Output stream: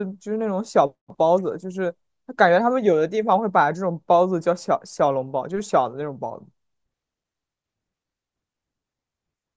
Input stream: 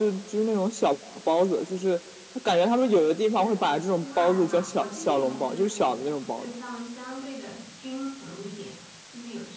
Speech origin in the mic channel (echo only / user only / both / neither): both